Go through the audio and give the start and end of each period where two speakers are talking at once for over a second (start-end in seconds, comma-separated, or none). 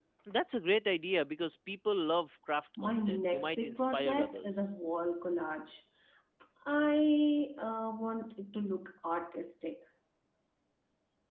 2.8-4.7